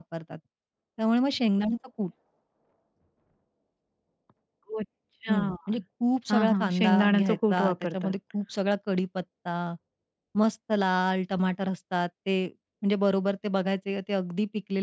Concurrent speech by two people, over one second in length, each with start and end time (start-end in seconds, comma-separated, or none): 6.3-8.1